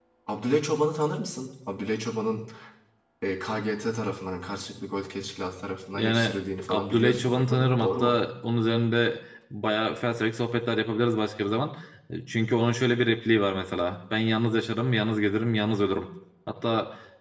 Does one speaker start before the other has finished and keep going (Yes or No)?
Yes